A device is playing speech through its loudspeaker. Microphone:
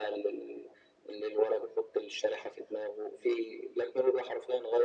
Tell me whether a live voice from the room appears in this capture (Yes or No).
No